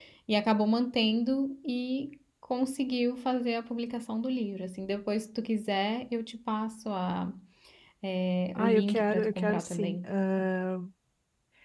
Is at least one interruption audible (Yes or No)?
Yes